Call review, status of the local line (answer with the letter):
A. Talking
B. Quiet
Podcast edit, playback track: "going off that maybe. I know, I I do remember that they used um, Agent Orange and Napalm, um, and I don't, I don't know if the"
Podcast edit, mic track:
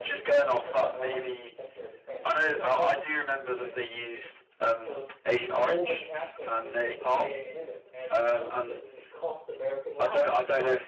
A